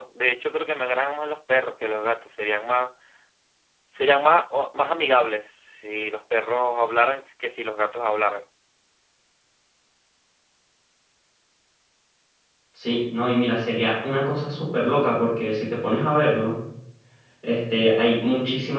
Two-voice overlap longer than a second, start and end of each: none

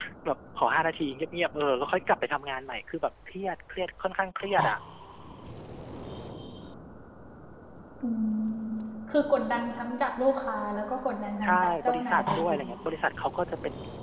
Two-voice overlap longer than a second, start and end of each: 11.4-12.6

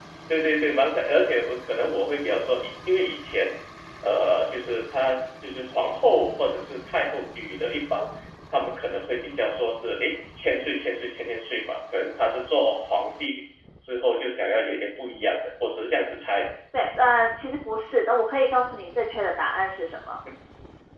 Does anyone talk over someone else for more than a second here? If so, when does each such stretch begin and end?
none

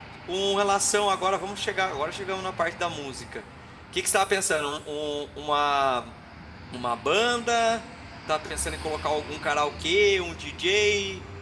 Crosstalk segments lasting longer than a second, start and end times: none

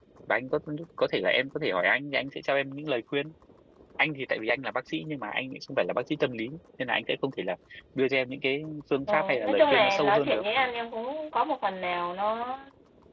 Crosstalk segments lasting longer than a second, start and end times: 9.1-10.4

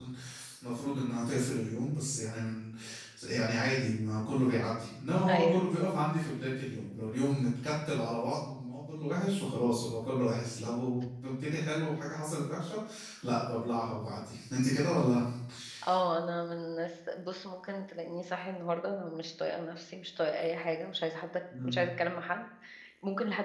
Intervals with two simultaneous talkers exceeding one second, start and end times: none

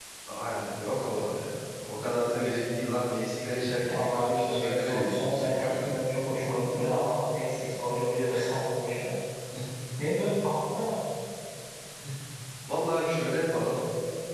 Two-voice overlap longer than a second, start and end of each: 3.8-5.9

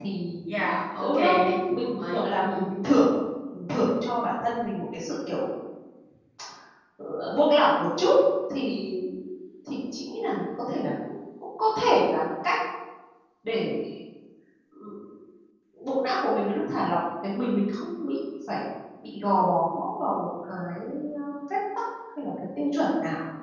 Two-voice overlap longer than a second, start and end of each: 1.0-2.5

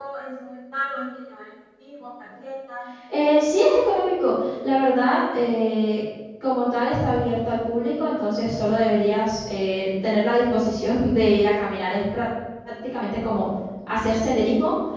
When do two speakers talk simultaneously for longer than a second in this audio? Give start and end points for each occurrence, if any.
none

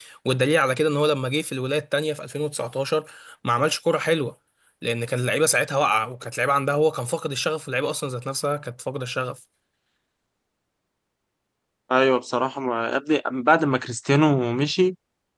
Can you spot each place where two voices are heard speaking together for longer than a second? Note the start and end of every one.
none

